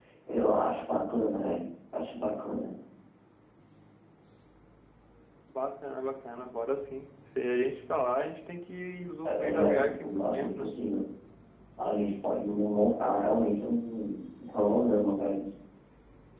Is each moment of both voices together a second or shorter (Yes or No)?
No